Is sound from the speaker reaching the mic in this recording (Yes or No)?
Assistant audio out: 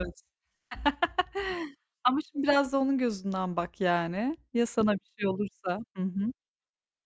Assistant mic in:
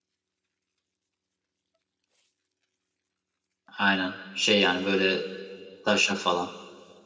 No